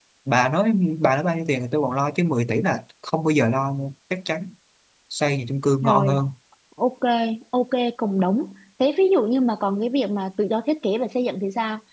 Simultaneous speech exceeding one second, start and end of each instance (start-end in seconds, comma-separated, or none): none